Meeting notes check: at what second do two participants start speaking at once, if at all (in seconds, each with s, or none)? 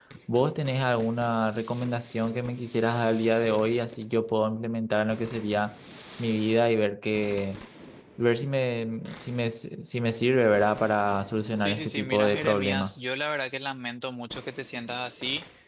11.5 s